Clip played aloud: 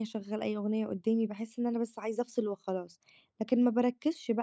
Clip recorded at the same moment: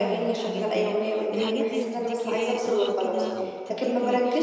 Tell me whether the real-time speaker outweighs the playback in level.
No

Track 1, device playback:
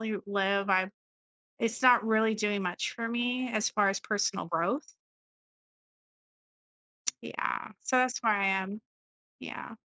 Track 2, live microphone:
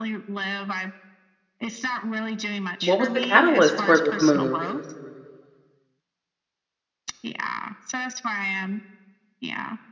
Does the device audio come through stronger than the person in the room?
No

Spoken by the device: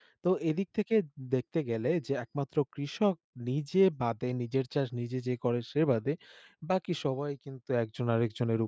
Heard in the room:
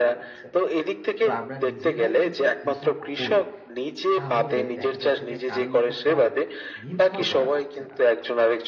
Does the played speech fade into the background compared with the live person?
No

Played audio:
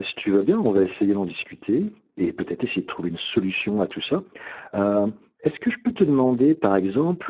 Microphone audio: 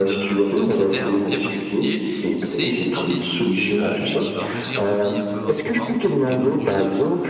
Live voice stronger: No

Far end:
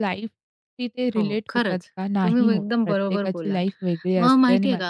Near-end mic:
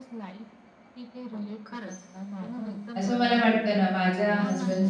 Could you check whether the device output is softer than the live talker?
Yes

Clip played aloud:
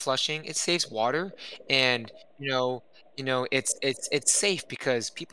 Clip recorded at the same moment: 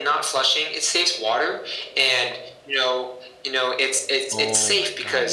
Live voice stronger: No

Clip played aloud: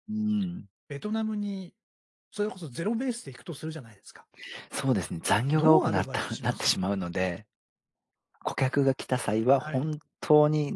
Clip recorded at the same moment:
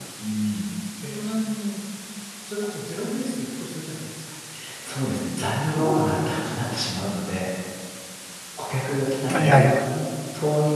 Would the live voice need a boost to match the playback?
No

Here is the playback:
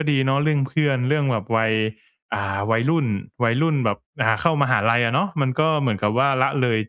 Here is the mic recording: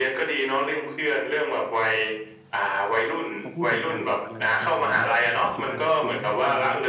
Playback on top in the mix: Yes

